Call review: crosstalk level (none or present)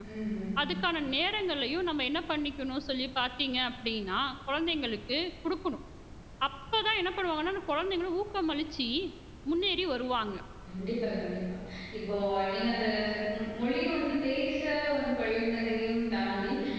none